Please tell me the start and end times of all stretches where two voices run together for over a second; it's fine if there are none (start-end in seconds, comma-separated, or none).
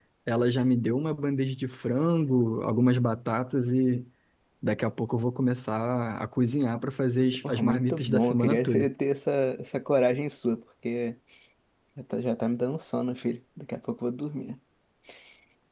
7.5-8.9